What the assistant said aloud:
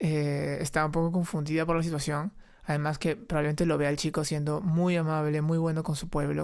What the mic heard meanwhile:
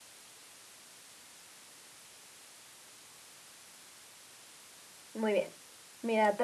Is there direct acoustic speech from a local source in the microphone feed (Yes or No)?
Yes